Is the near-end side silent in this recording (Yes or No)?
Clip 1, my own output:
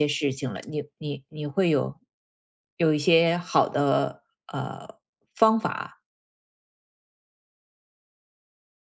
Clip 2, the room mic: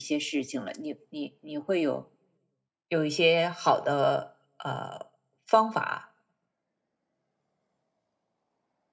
Yes